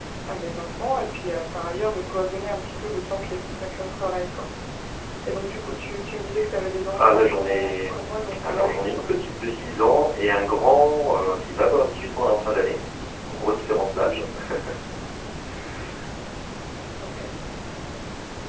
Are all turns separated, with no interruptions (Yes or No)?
No